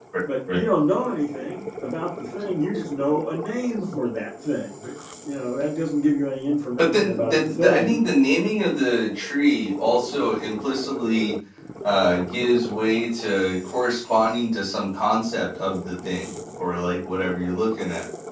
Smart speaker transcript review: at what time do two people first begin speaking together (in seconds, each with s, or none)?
6.8 s